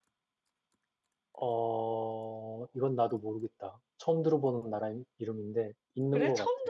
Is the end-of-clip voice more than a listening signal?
Yes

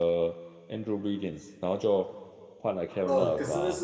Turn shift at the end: Yes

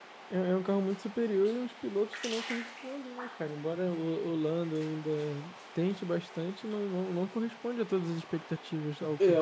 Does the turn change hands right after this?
Yes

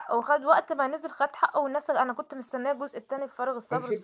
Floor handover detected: Yes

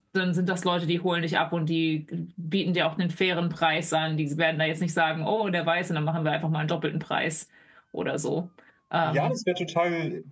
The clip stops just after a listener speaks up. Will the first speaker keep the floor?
No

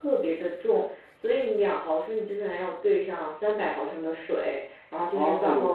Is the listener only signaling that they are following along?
No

